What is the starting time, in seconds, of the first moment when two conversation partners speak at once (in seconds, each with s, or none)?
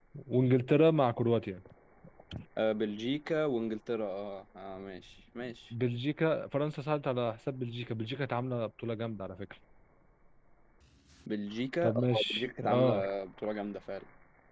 11.8 s